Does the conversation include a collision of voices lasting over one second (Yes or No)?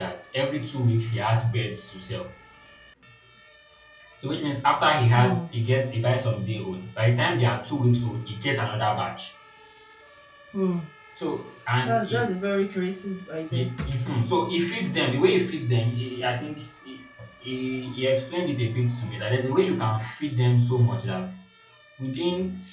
No